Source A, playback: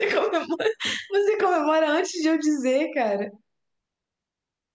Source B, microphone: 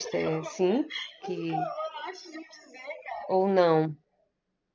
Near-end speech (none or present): present